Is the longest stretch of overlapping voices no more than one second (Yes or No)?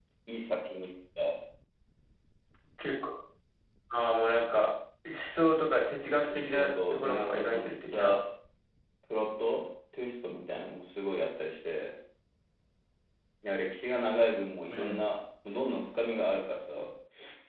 No